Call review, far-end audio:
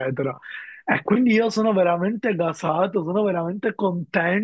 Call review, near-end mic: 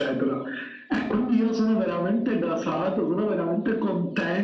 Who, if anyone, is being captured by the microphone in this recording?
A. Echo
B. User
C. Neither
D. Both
A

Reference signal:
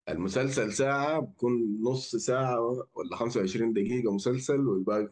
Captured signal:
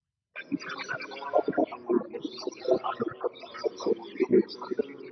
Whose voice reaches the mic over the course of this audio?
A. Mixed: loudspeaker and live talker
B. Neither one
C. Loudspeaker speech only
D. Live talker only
C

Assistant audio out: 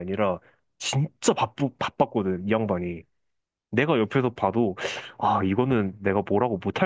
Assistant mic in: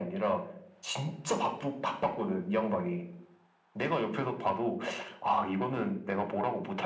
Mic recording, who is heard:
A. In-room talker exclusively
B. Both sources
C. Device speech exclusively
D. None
C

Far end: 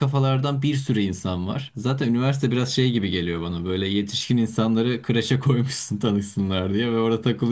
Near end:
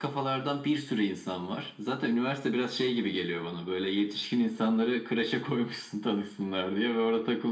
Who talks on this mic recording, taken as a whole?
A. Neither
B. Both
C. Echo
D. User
C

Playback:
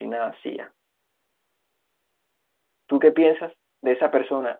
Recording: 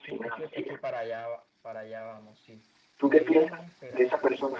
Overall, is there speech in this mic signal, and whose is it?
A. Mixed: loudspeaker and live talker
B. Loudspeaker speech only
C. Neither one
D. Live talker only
A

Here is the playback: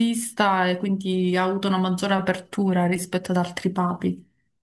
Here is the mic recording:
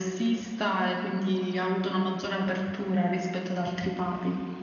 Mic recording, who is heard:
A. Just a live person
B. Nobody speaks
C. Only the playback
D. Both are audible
C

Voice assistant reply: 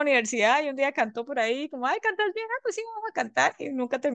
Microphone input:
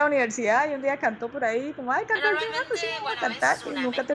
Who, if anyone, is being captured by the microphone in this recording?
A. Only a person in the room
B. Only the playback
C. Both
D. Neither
C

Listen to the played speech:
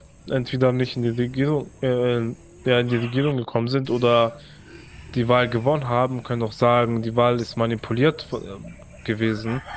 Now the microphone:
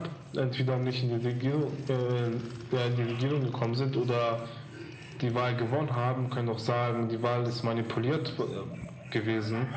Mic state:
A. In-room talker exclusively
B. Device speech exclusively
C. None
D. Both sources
B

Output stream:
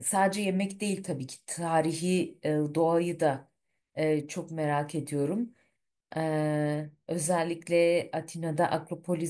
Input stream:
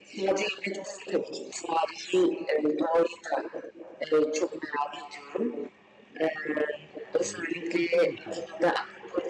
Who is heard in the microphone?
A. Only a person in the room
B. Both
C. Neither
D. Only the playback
B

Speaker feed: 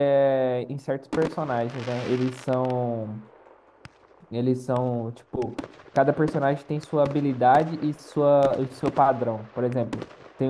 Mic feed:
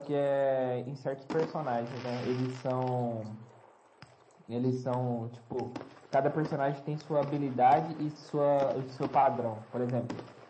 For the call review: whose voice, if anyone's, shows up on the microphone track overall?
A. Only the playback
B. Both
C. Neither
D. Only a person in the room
A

